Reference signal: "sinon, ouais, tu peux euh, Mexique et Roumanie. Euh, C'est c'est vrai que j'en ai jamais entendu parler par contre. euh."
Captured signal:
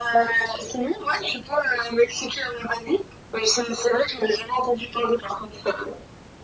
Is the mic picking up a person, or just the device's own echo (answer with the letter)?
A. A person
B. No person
B